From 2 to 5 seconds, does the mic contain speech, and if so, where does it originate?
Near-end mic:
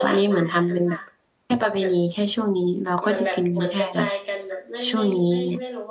both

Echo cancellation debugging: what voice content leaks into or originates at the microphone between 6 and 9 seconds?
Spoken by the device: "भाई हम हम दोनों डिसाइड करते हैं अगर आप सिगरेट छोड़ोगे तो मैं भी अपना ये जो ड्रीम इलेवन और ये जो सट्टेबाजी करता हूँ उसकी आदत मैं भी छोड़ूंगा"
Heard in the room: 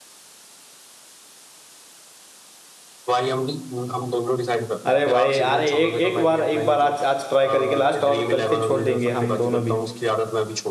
both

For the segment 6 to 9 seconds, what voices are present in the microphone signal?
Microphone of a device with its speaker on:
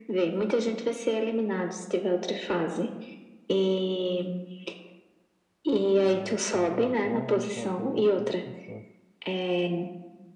both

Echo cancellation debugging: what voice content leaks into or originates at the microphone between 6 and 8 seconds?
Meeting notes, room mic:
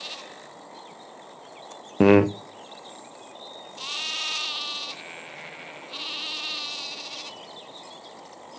neither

